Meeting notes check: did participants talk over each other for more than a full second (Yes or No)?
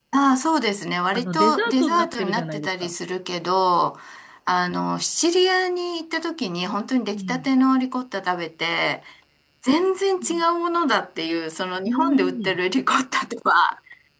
Yes